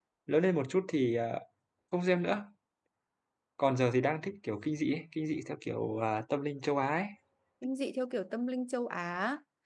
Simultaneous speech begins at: none

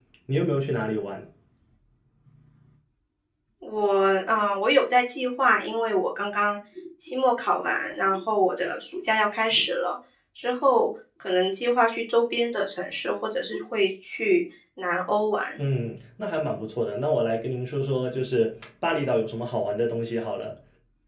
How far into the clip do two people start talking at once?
none

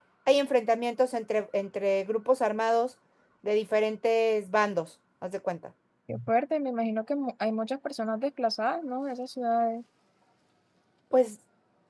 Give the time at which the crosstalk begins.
none

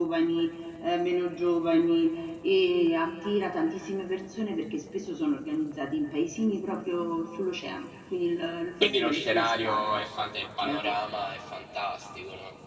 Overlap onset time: 9 s

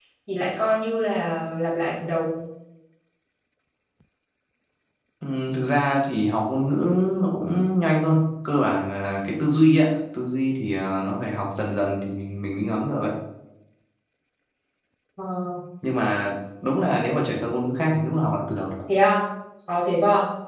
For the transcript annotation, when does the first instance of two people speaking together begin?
none

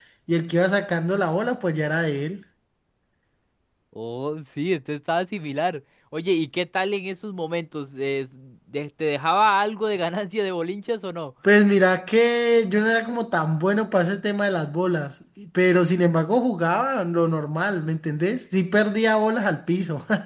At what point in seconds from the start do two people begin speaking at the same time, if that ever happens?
none

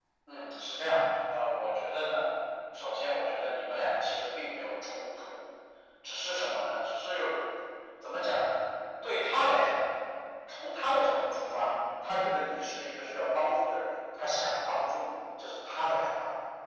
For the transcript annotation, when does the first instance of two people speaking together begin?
none

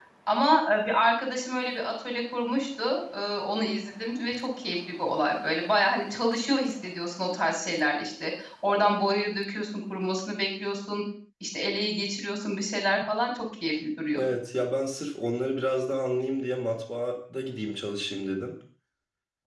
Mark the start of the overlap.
none

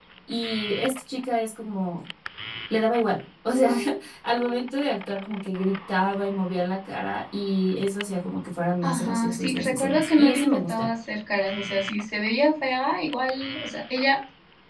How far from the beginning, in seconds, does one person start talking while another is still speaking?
9 s

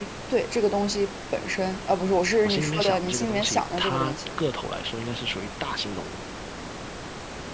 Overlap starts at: 2 s

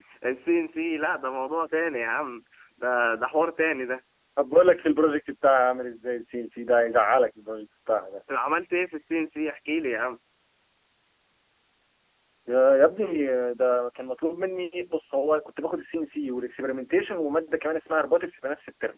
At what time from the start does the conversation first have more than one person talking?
none

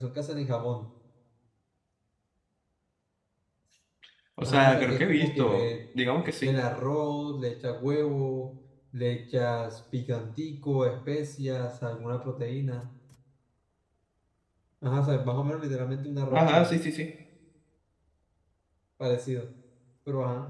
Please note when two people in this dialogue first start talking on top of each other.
4 s

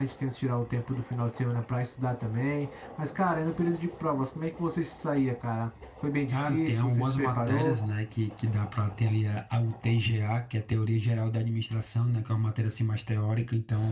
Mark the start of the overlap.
6 s

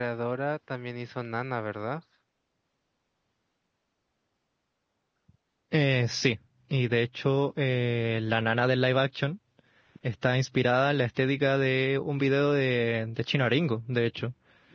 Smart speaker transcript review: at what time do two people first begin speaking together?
none

